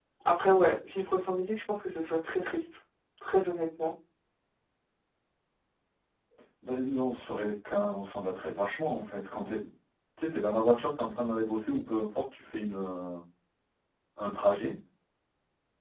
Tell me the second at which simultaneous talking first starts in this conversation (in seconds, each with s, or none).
none